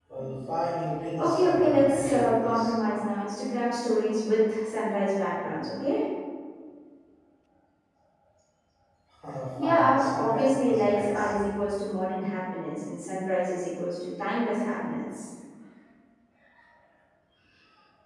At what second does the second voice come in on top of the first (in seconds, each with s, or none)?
1.2 s